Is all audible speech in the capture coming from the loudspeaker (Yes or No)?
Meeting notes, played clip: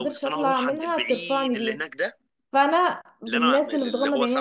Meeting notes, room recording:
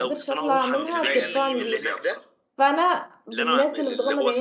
No